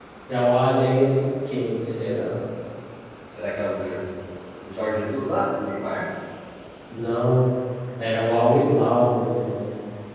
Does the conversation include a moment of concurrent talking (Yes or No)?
No